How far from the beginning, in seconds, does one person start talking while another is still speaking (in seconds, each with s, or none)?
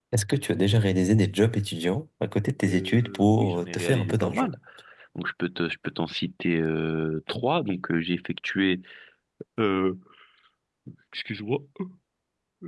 2.7 s